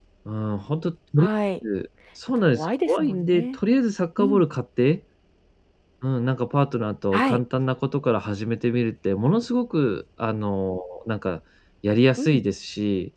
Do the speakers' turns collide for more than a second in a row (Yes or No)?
Yes